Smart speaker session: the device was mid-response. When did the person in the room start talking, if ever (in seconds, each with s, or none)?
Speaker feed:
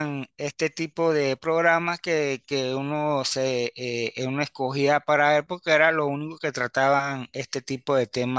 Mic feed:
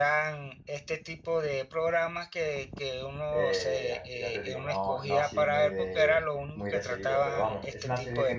3.3 s